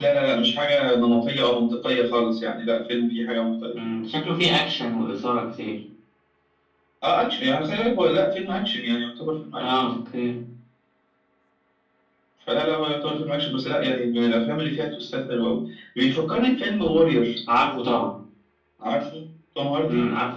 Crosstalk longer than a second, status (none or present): none